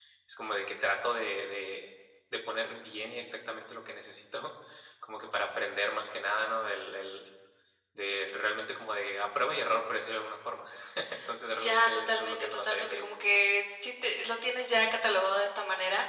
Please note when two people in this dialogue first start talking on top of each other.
11.6 s

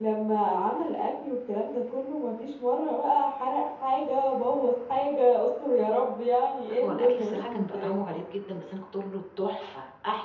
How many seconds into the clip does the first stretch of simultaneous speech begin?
6.7 s

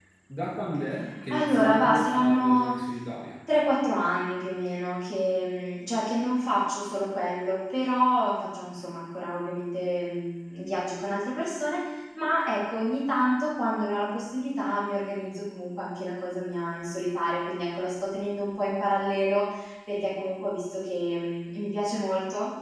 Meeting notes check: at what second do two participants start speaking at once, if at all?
1.3 s

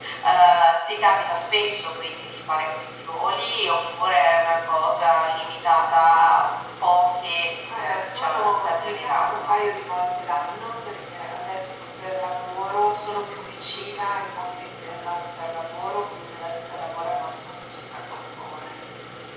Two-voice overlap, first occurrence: 7.8 s

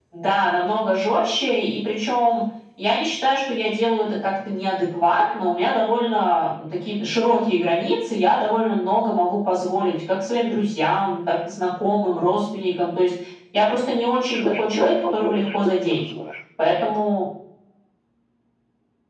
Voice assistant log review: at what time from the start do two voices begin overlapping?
14.3 s

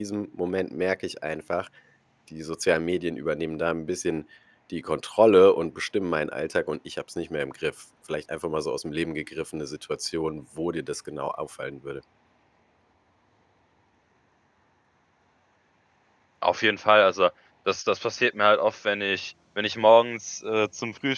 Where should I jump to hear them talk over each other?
none

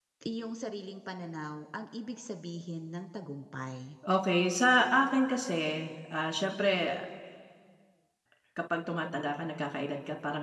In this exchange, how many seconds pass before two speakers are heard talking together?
none

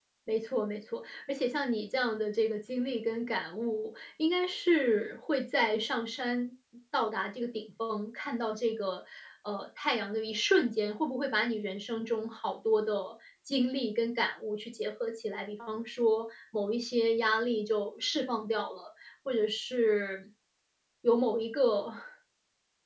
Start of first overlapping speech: none

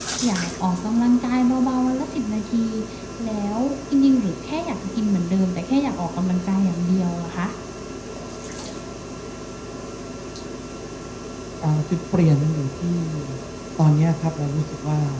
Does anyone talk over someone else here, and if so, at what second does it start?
none

